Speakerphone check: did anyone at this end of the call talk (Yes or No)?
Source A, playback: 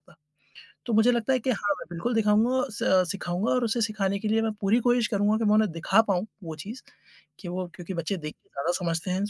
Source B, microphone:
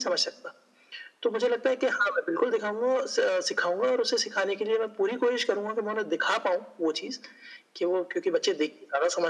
No